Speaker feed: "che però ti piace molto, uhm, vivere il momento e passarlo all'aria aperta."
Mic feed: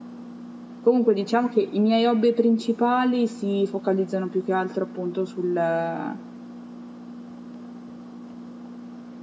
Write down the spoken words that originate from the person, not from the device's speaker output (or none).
Comunque diciamo che i miei hobby principali si focalizzano più che altro appunto sul, eh,